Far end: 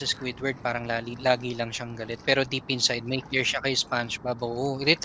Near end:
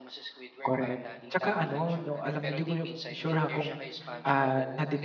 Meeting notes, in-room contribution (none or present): present